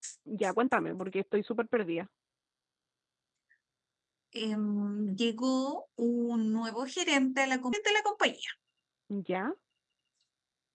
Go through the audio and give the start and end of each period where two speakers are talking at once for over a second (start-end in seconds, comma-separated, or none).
none